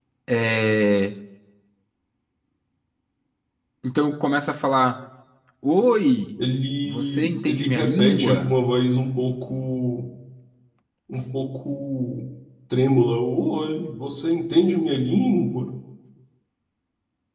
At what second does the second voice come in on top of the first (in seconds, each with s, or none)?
6.8 s